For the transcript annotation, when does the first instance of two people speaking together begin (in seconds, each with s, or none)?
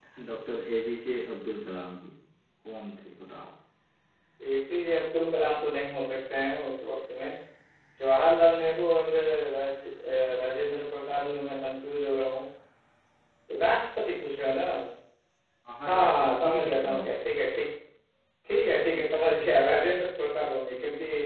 15.9 s